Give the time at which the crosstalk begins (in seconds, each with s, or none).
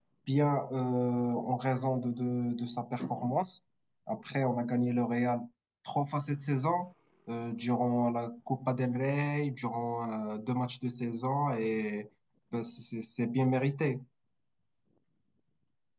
none